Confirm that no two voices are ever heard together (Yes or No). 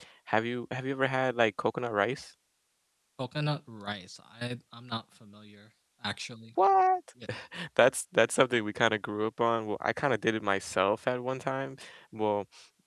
Yes